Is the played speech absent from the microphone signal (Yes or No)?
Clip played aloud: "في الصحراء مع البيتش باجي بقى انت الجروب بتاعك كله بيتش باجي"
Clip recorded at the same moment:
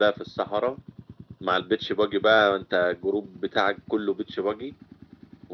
No